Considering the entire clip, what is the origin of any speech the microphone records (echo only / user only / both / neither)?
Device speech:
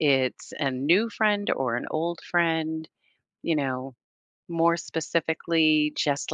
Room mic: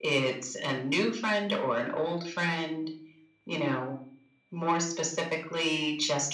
echo only